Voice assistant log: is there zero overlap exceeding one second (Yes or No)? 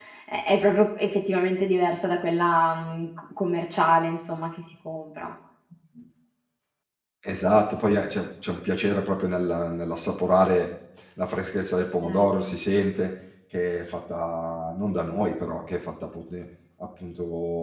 Yes